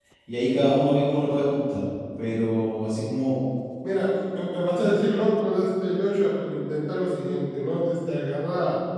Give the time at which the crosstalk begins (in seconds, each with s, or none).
none